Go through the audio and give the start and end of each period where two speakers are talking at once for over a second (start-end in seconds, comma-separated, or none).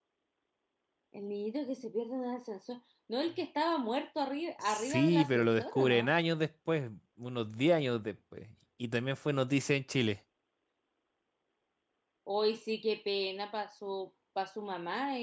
4.6-6.1